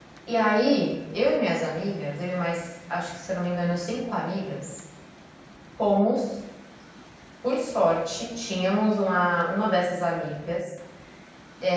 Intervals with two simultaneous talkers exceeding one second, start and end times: none

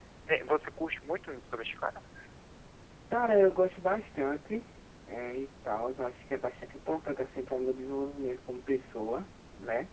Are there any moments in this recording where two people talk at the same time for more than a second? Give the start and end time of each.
none

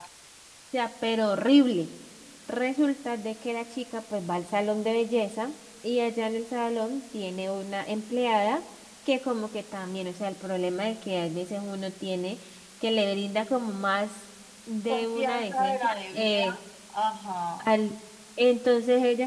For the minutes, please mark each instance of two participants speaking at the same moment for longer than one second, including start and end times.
14.9-16.4

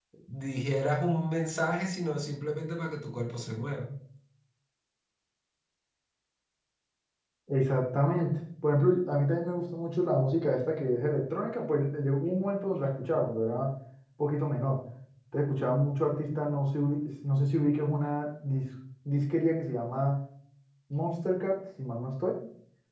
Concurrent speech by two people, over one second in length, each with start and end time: none

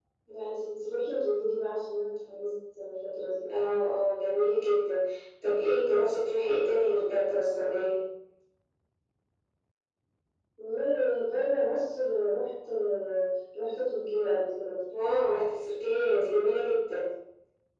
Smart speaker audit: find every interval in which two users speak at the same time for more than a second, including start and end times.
none

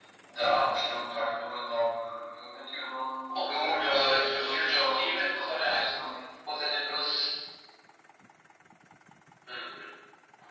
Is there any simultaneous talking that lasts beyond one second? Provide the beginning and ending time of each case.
3.3-6.2

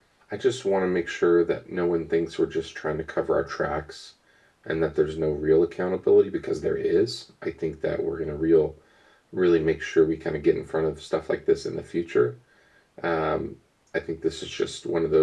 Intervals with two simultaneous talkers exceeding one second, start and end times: none

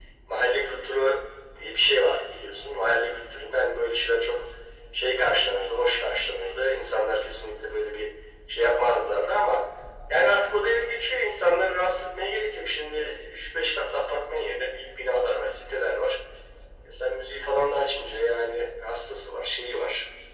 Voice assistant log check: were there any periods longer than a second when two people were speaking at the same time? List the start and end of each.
none

